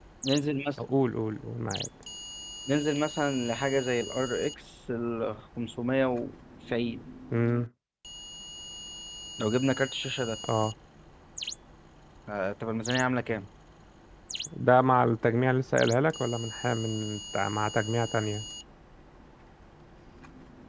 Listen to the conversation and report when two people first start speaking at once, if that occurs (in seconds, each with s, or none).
none